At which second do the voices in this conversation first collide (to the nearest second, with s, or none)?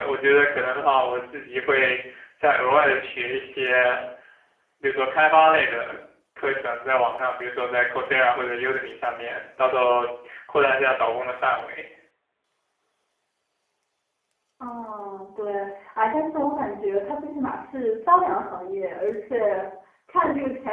none